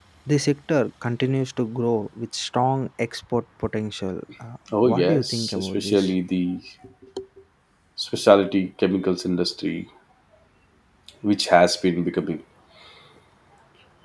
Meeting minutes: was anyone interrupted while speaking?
Yes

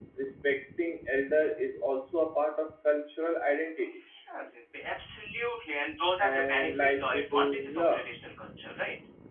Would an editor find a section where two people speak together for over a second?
Yes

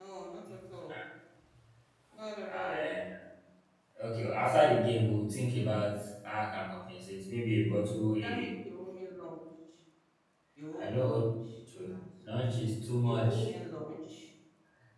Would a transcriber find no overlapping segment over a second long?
Yes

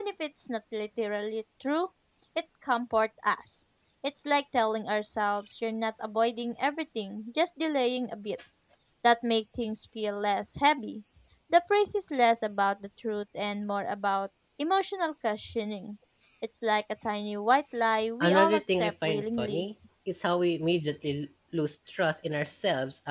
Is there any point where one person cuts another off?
Yes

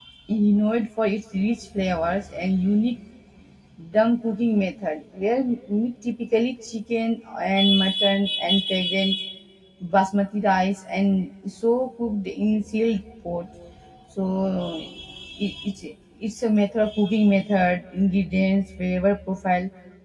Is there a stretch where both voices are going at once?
No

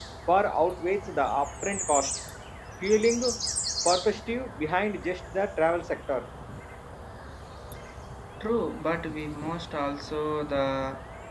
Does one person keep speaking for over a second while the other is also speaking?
No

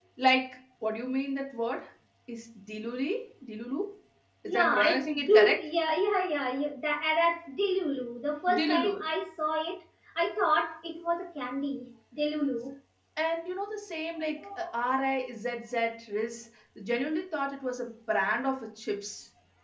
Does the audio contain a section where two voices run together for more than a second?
Yes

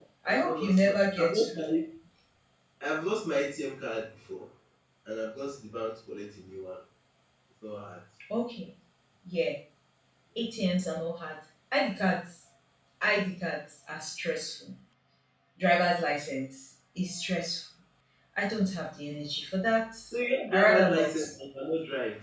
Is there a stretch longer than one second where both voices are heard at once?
Yes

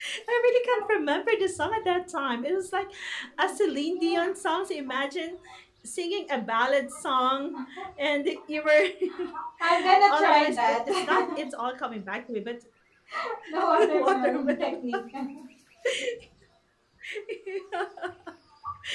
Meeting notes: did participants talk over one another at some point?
Yes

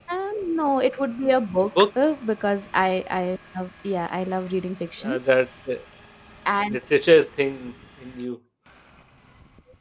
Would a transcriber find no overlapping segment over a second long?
Yes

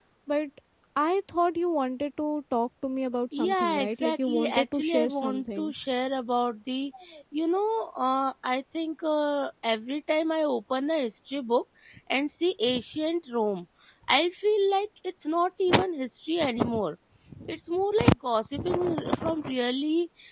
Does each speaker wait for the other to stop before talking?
No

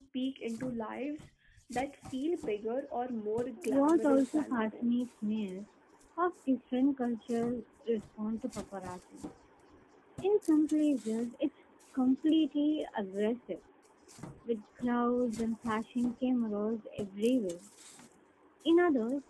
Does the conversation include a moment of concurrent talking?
Yes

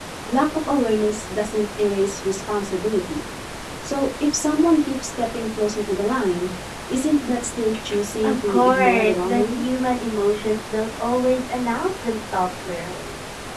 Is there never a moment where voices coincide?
No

